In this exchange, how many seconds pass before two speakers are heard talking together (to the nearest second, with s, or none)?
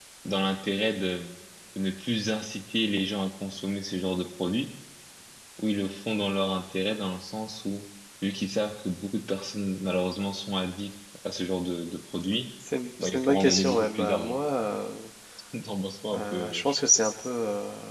13 s